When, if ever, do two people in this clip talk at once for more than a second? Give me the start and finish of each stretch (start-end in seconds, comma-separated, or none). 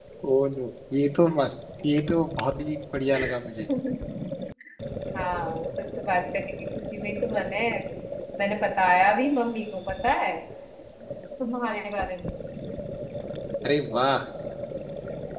none